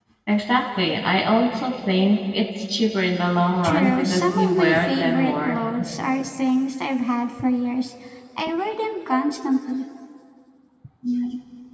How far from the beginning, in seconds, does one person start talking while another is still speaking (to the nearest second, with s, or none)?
4 s